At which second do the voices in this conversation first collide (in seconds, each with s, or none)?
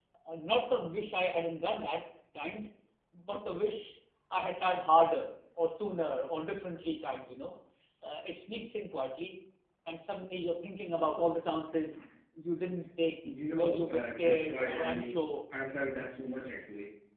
13.2 s